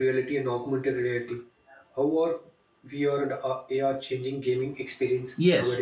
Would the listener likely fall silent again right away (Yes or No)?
No